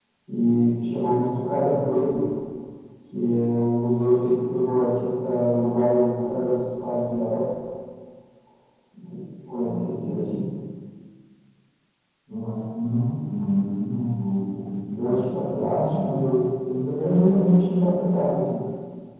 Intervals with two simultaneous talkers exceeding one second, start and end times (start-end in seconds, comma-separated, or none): 15.0-16.3